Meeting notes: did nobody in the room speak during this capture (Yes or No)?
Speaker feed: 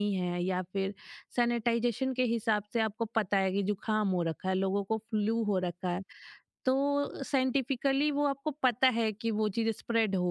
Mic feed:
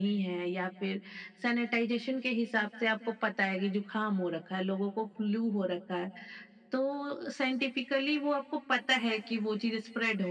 Yes